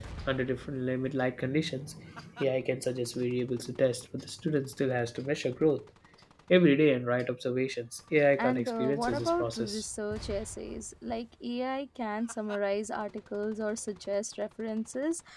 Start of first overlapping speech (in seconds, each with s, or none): 8.4 s